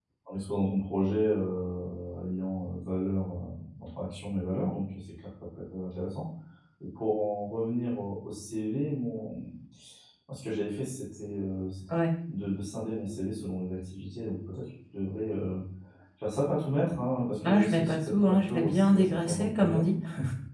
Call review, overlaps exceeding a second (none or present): present